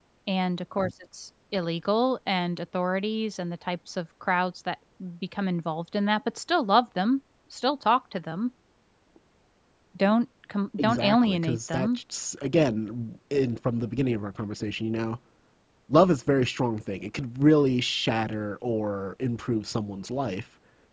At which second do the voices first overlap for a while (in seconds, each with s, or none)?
10.8 s